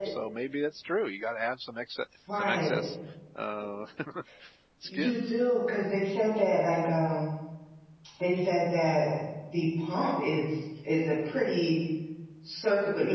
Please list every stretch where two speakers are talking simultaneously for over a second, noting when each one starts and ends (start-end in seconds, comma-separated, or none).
none